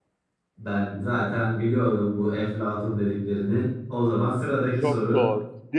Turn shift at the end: Yes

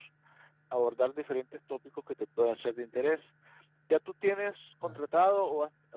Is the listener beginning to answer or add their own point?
No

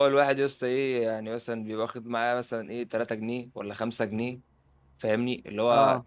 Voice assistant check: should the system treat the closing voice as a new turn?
No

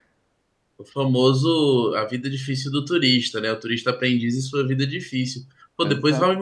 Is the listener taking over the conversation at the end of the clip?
No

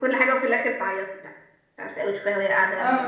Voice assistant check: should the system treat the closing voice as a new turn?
No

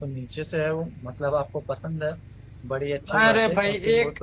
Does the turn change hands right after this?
Yes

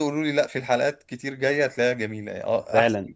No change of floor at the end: No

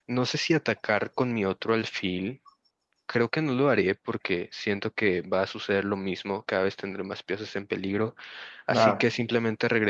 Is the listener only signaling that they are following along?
Yes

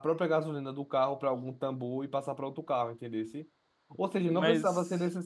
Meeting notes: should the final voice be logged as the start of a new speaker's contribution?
No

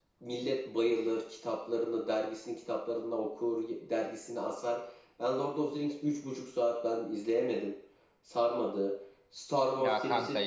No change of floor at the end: No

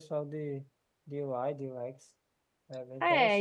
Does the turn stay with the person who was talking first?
No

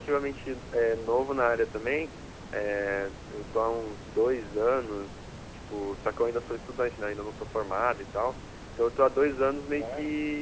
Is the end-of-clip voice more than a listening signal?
No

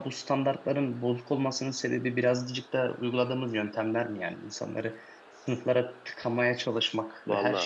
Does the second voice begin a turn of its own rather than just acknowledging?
No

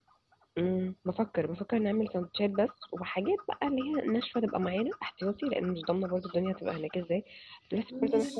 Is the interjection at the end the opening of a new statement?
No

